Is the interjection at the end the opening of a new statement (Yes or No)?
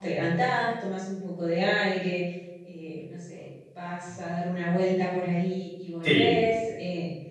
No